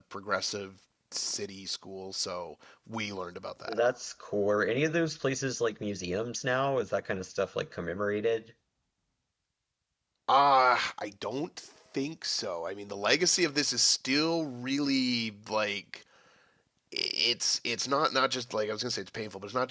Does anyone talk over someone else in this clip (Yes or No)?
No